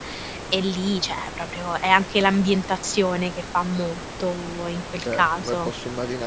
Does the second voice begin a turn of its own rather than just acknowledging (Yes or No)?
Yes